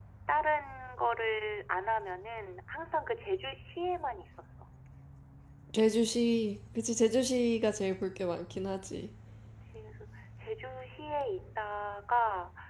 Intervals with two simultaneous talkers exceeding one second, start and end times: none

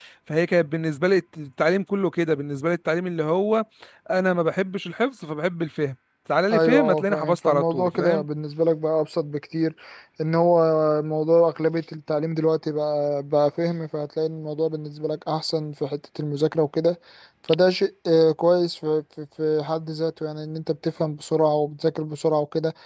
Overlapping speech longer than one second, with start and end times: 6.5-8.2

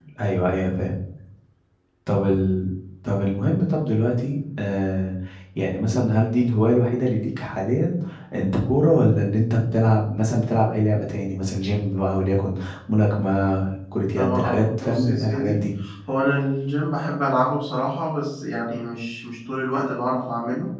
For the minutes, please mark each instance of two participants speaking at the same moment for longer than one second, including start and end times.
14.2-15.7

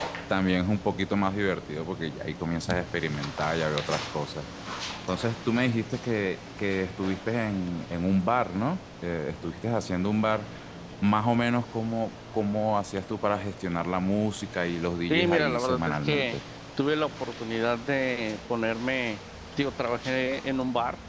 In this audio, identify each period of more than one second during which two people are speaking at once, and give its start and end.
15.1-16.4

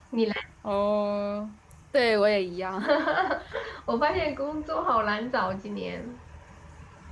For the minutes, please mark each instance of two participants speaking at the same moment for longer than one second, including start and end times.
none

